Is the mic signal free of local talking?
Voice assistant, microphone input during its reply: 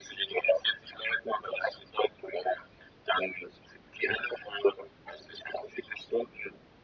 Yes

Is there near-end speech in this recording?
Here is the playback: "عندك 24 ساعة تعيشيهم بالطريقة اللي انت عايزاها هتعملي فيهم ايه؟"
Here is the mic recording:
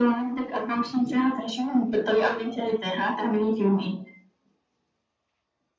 No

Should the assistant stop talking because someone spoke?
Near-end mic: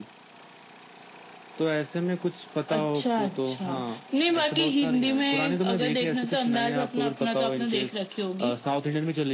No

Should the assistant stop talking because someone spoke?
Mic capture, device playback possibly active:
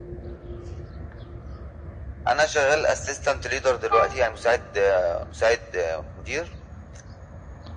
No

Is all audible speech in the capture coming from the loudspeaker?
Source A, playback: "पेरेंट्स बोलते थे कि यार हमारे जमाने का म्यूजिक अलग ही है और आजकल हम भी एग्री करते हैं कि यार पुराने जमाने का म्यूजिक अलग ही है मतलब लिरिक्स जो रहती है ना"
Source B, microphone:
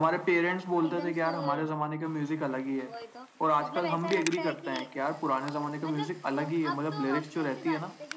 No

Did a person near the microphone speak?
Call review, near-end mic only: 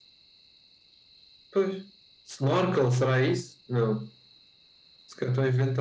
No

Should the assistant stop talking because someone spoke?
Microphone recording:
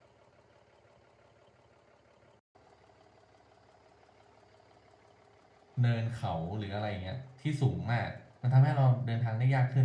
Yes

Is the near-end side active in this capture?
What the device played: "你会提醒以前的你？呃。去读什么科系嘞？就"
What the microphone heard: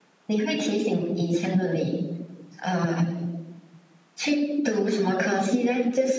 No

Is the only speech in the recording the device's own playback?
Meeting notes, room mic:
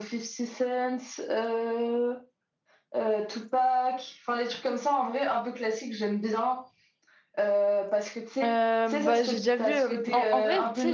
No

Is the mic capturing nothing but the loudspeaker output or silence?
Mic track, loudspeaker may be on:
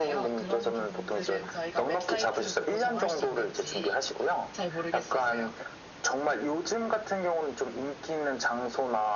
No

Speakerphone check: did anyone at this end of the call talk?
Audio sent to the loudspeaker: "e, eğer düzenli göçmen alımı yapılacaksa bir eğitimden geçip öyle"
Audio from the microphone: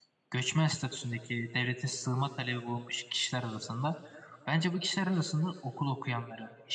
Yes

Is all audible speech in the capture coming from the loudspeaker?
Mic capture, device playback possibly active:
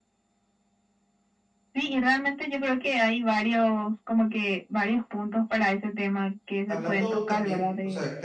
No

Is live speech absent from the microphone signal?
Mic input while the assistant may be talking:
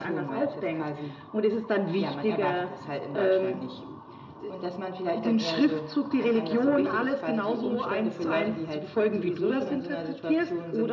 Yes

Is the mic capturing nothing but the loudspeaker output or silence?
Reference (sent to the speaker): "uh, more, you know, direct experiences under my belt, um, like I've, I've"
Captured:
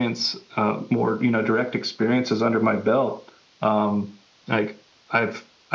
Yes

